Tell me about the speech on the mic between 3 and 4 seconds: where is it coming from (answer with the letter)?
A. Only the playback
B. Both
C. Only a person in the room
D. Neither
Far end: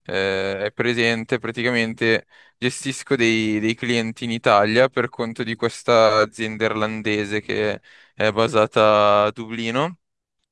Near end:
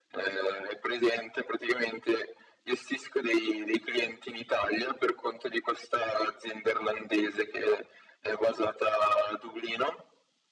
A